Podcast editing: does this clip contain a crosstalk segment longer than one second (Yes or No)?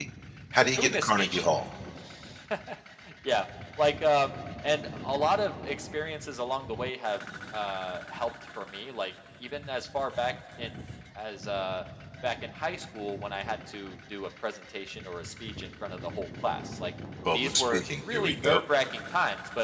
Yes